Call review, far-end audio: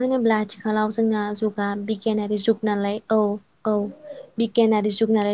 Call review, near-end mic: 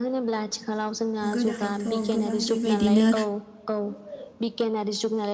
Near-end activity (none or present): present